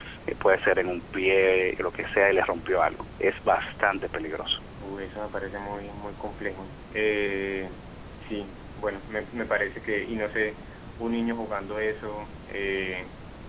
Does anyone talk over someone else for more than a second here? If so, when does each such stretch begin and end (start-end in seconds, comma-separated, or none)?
none